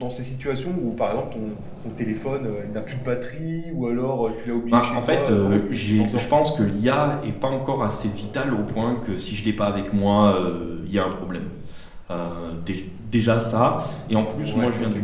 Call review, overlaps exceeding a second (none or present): present